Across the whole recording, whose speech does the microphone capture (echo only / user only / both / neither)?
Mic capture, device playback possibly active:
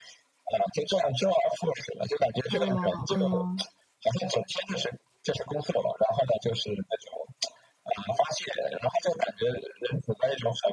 both